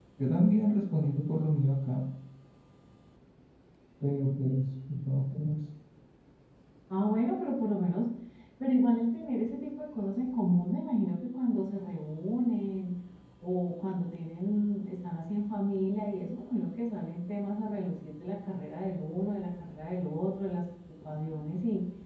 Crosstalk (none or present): none